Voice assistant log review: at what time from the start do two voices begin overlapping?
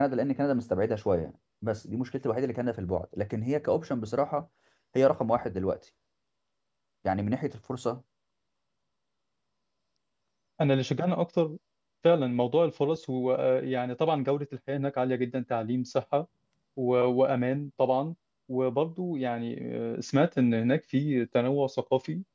none

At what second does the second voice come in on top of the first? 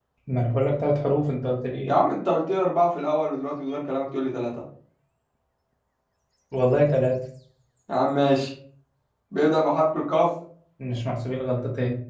none

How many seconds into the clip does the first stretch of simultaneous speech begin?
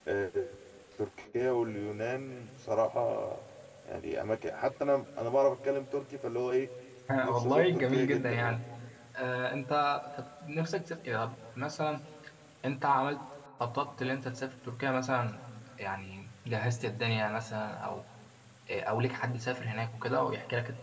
7.2 s

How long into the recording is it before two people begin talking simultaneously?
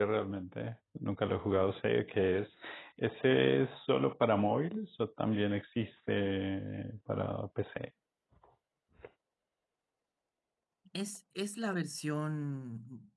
none

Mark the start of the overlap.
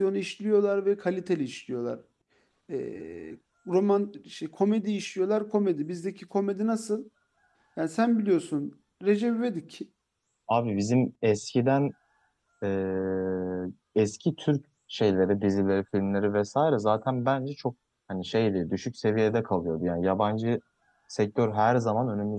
none

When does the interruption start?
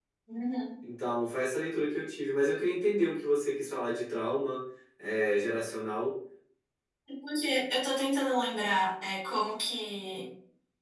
none

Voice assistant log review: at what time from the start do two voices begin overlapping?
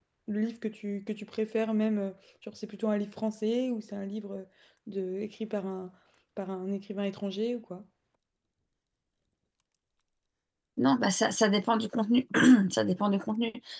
none

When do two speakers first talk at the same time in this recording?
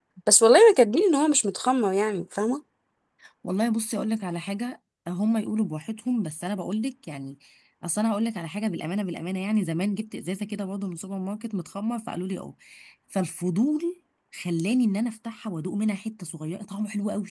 none

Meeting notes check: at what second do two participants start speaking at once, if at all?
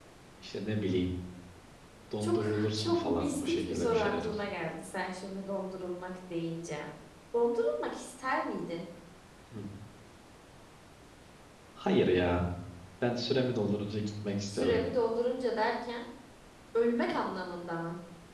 2.2 s

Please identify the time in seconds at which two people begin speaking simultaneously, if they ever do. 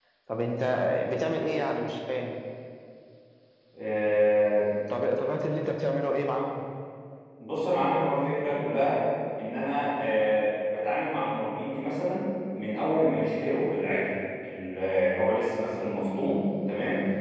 none

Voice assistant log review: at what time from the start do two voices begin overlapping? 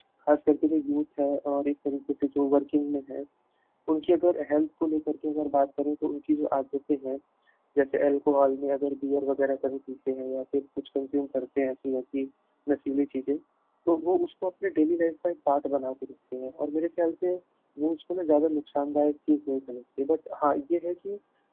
none

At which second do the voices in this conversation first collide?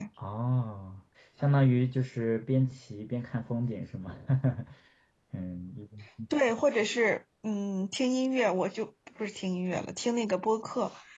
none

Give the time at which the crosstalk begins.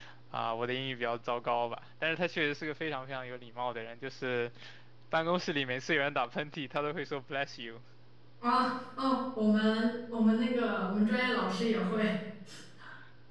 none

